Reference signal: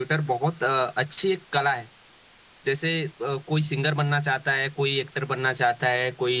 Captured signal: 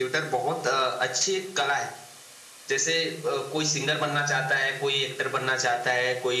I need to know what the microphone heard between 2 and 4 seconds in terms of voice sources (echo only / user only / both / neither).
echo only